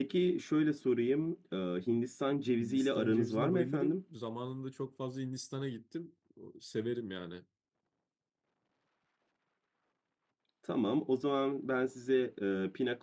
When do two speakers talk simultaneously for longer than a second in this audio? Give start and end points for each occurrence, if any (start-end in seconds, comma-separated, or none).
2.6-4.0